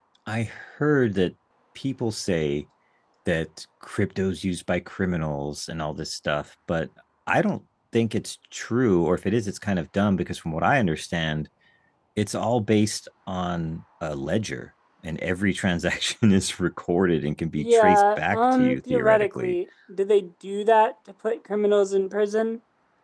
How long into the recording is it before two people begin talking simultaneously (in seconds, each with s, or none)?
17.6 s